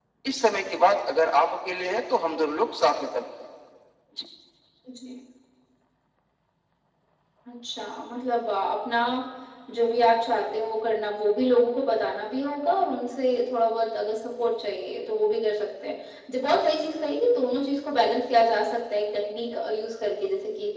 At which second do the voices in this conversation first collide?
none

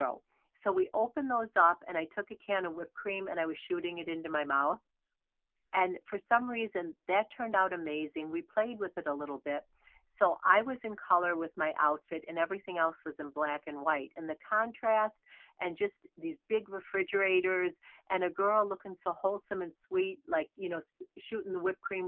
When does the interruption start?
none

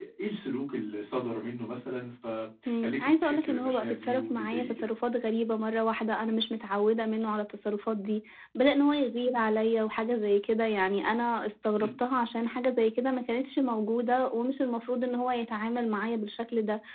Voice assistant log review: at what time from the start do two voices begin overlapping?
2.7 s

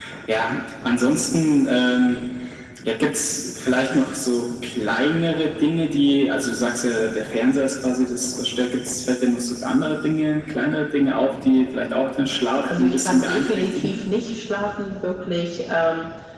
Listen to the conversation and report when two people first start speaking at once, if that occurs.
12.6 s

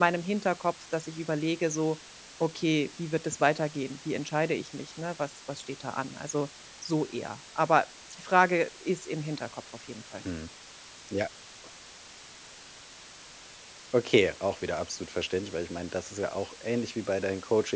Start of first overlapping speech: none

